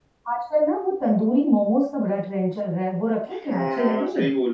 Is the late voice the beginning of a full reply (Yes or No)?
Yes